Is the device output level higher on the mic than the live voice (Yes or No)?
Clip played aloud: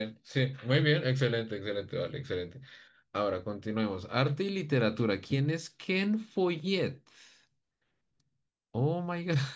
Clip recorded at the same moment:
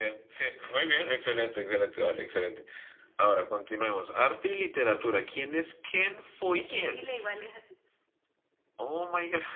Yes